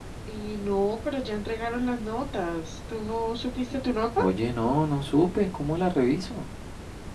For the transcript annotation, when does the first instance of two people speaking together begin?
none

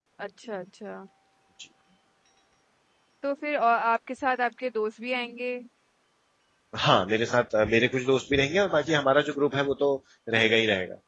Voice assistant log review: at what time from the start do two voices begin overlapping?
none

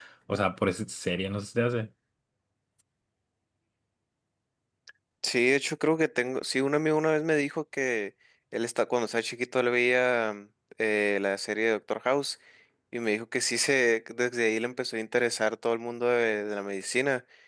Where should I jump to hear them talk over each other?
none

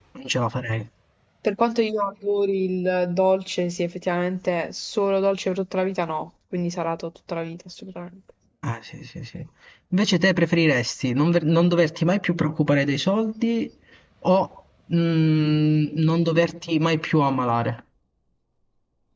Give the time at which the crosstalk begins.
none

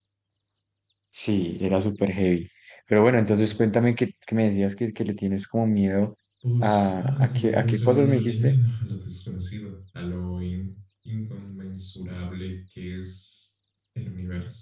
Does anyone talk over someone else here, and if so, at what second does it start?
6.6 s

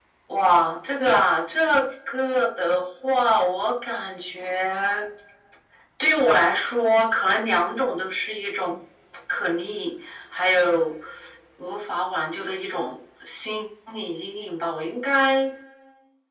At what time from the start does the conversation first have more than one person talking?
none

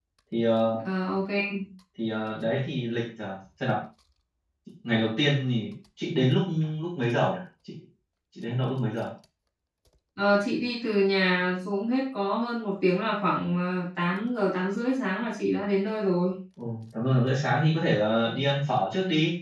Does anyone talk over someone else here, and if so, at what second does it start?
none

